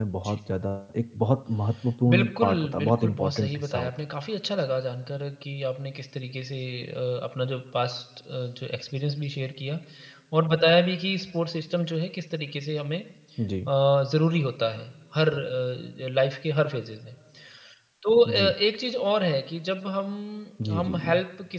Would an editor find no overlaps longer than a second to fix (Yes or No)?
No